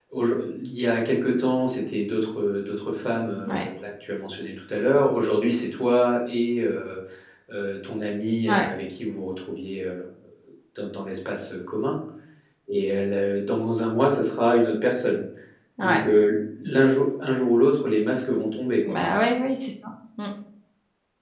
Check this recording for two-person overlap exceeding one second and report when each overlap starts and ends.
none

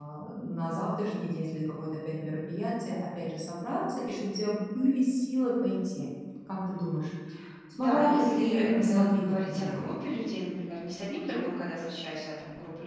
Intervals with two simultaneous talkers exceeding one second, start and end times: 7.7-9.9

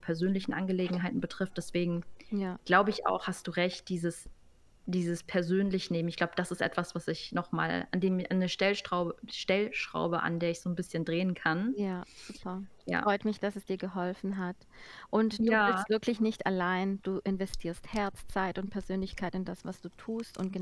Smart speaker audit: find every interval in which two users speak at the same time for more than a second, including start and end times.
none

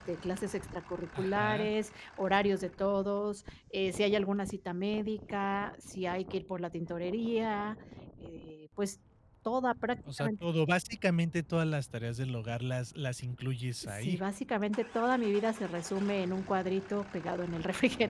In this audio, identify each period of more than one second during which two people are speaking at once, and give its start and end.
none

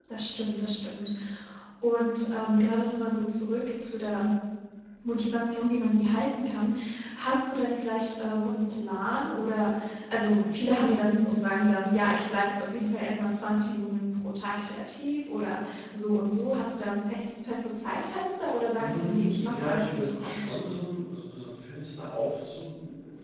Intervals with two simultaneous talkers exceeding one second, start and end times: 18.8-20.4

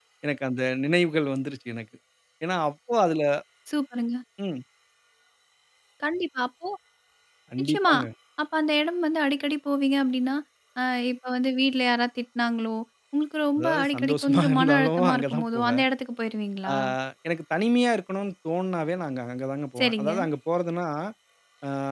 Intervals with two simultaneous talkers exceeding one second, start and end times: 13.6-15.8

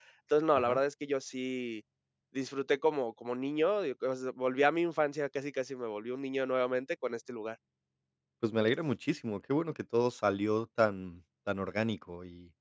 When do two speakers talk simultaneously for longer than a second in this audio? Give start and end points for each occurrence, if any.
none

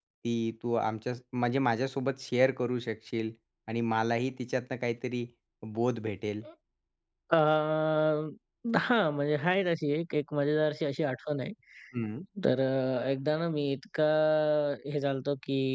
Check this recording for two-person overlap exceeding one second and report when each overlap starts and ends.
none

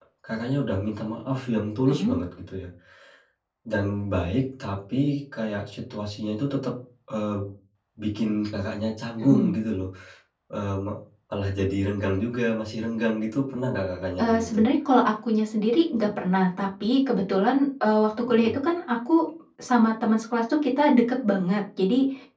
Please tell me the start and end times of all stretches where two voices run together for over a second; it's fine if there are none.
none

